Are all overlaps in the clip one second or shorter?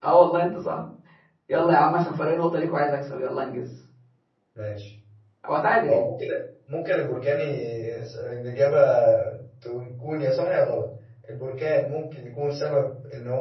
Yes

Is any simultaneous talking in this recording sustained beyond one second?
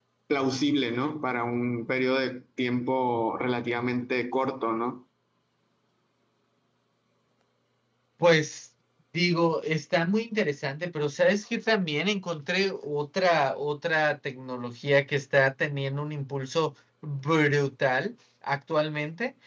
No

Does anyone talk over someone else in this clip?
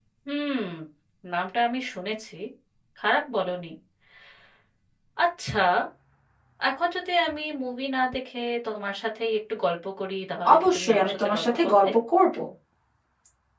Yes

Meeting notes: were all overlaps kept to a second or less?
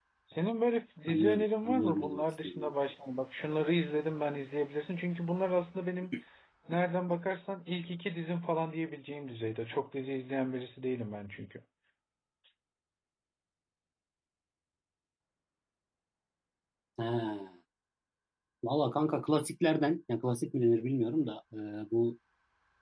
No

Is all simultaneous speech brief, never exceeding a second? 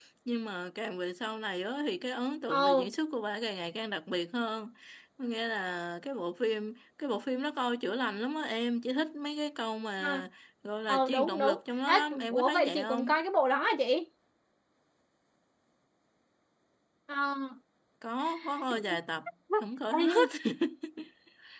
No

